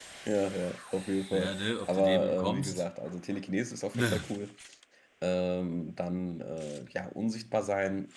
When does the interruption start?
1.3 s

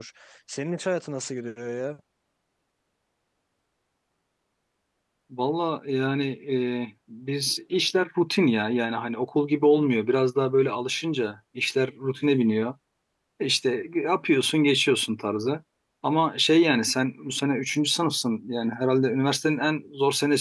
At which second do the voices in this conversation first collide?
none

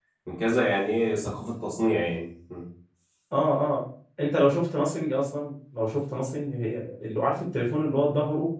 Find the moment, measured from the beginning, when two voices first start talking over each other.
none

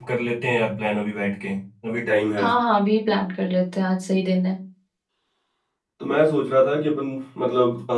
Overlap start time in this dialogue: none

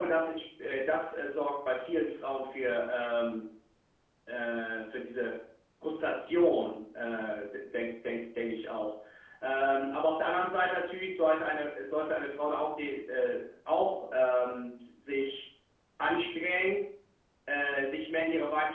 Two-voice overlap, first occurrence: none

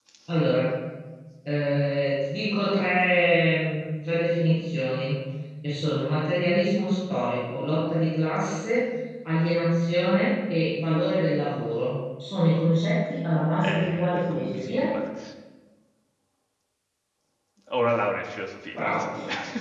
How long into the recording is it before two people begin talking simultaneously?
13.6 s

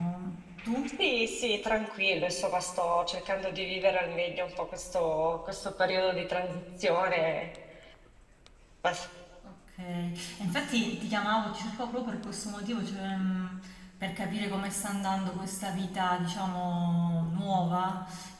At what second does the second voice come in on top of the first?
none

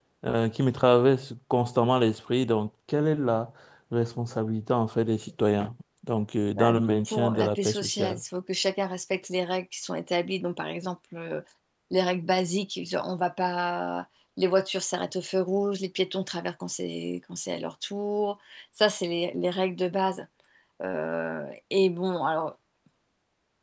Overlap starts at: 6.5 s

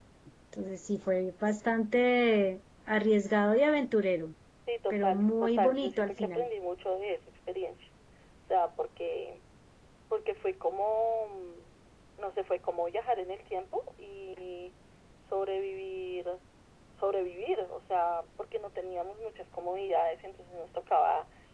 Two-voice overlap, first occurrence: 4.9 s

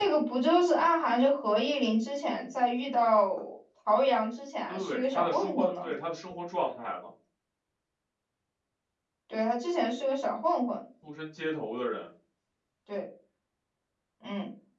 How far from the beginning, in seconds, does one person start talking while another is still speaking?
4.7 s

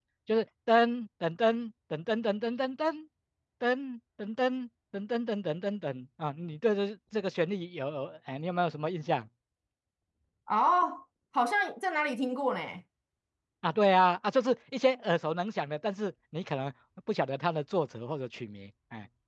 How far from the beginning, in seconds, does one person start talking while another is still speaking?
none

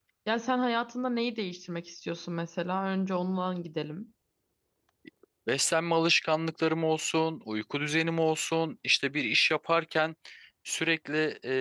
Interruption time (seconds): none

